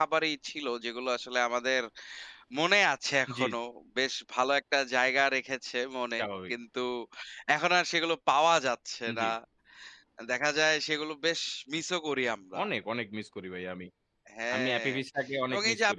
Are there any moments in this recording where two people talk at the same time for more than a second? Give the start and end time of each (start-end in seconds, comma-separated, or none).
none